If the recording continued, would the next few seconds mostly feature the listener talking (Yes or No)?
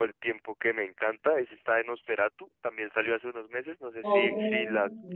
Yes